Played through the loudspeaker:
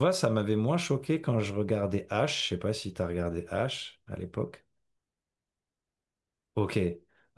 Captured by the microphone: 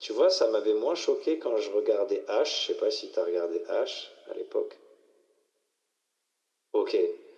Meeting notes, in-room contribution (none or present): none